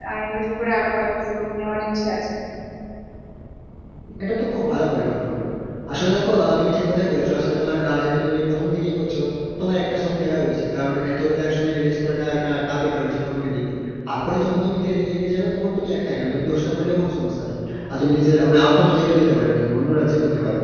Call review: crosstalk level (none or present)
none